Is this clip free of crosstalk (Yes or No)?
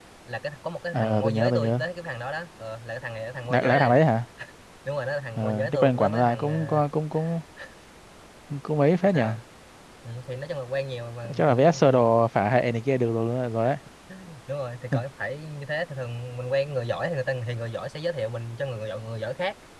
No